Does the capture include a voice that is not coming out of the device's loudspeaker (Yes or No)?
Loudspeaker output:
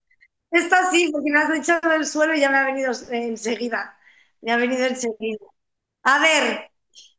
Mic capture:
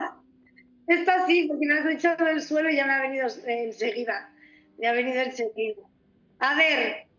No